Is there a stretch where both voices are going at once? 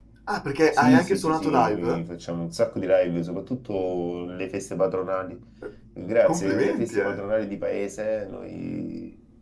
Yes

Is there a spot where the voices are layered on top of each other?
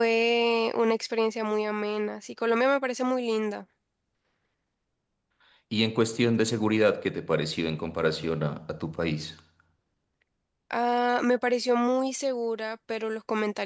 No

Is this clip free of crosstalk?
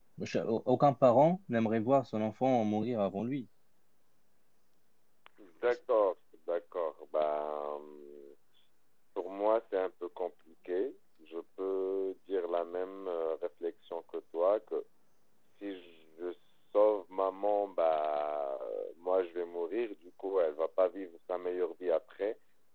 Yes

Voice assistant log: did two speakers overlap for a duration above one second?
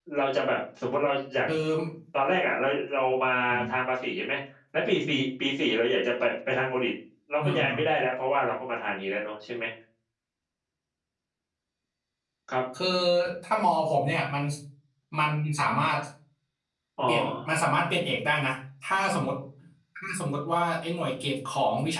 No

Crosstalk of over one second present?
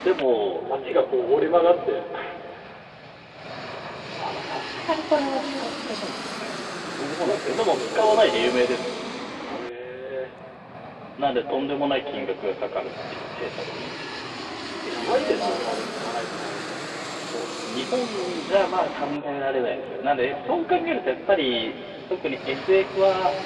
Yes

